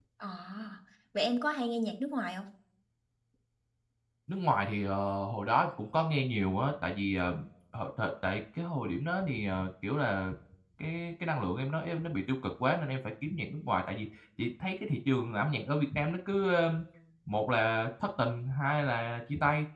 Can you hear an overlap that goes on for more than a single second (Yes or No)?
No